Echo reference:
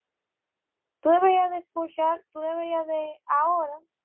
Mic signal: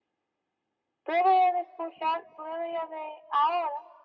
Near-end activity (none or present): none